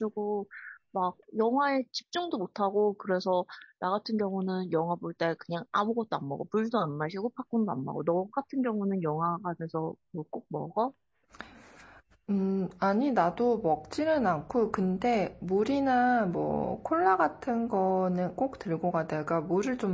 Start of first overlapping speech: none

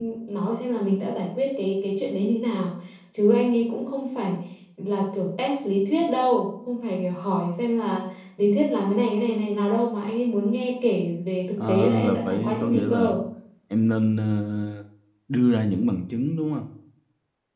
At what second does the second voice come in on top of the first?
11.6 s

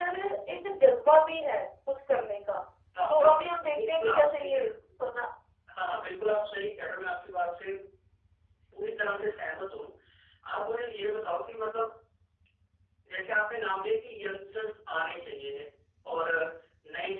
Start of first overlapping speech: 3.1 s

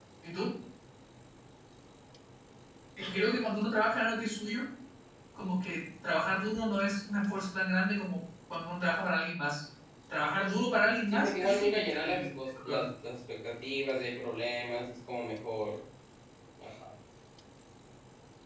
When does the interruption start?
11.1 s

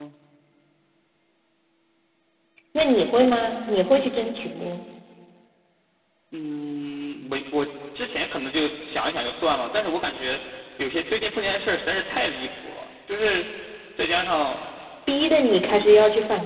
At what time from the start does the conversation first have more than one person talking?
none

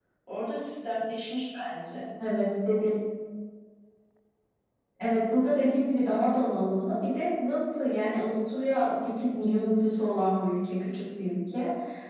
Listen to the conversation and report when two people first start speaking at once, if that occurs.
none

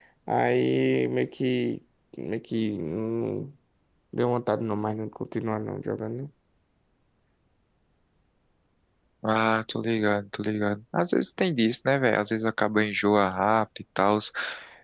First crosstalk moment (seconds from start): none

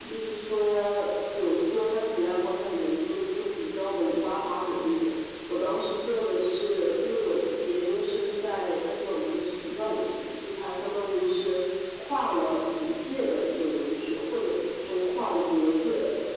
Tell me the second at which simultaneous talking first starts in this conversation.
none

